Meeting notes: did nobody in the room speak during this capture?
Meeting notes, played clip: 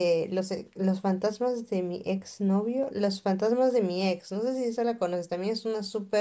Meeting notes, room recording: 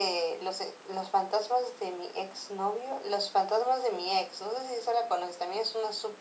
Yes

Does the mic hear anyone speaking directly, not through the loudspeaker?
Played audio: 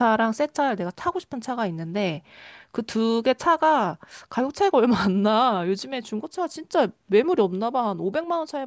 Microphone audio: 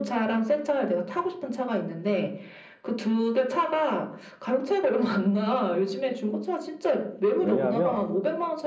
Yes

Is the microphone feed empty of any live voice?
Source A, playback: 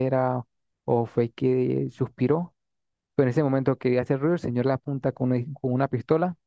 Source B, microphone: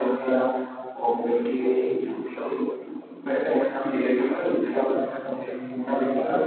Yes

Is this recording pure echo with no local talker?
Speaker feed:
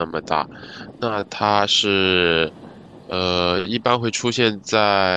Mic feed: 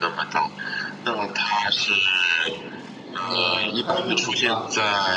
No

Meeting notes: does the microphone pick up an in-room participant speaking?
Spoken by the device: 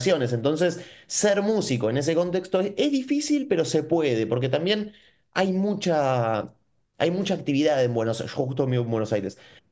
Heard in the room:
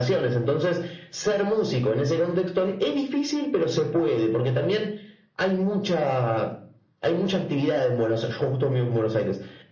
No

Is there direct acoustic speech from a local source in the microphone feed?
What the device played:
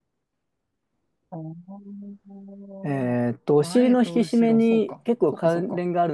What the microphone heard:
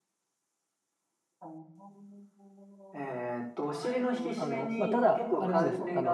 Yes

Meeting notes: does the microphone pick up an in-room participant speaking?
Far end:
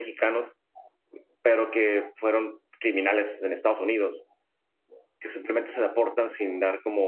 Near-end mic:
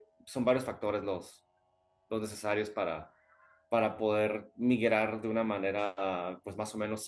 Yes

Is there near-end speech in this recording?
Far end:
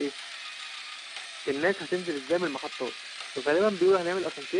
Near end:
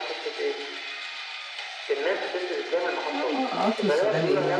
Yes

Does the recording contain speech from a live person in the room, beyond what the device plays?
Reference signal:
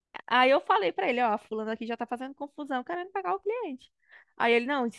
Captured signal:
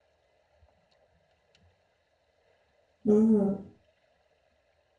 Yes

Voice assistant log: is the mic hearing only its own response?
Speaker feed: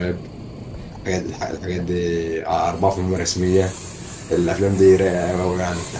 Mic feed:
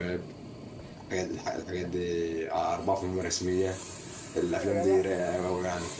No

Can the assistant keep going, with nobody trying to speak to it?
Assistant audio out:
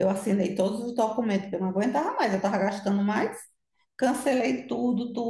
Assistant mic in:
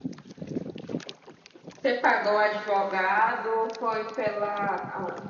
No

